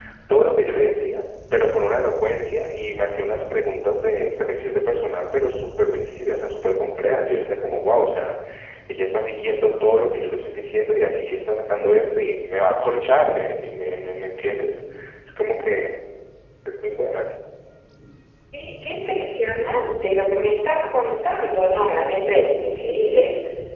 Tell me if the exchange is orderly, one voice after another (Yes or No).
Yes